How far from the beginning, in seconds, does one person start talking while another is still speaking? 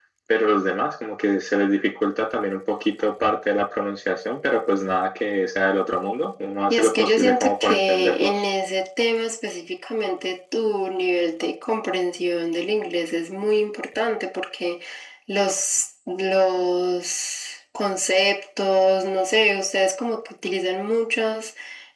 6.7 s

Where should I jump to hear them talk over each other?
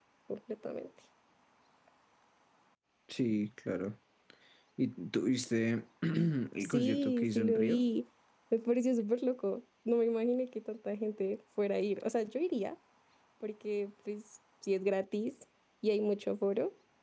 6.6 s

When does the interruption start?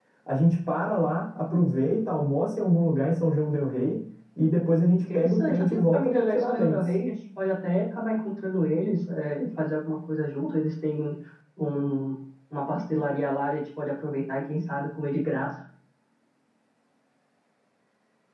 5.1 s

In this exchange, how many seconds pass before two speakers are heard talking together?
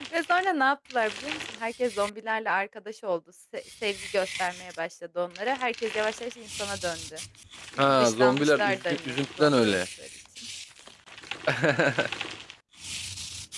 7.9 s

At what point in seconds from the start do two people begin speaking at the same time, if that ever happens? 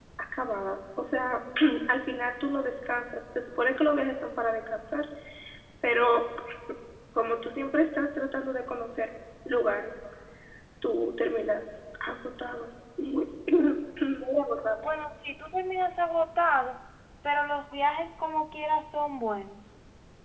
none

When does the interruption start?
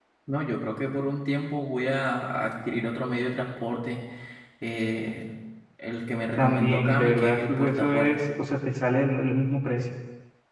6.4 s

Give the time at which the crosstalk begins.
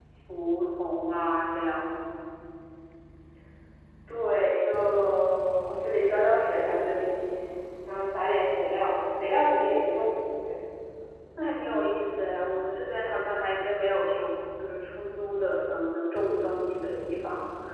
none

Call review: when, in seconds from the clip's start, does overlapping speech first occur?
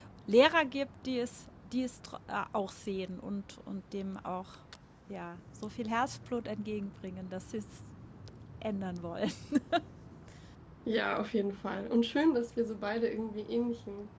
none

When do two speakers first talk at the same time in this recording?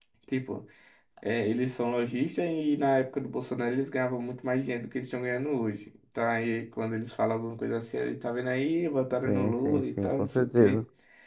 9.2 s

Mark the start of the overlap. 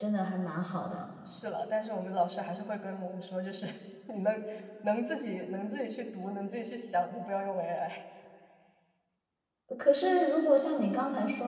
none

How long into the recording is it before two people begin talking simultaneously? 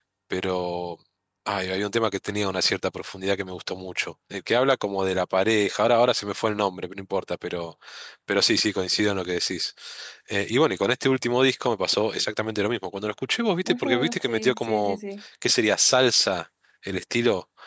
13.6 s

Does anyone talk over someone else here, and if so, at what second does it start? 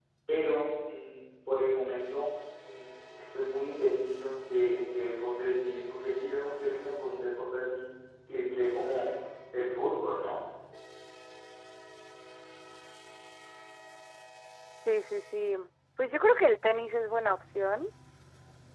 none

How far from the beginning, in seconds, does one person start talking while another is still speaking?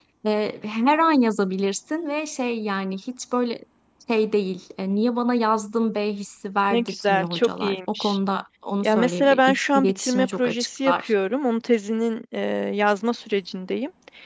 6.7 s

